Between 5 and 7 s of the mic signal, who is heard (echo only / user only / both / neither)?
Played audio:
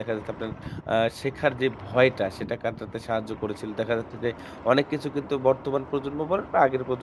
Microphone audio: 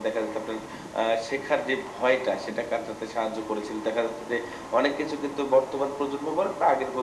echo only